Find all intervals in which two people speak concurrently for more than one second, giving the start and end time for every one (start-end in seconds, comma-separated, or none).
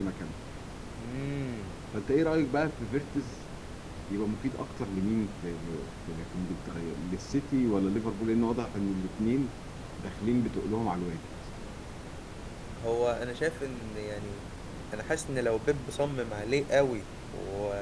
none